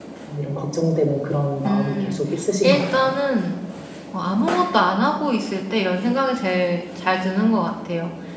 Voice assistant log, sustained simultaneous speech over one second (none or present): none